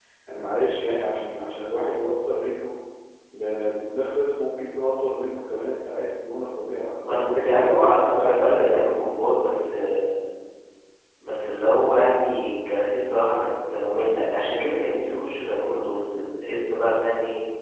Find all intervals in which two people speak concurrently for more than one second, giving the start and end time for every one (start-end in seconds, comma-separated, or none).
7.0-8.9